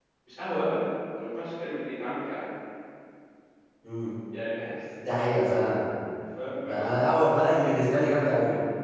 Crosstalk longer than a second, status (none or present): none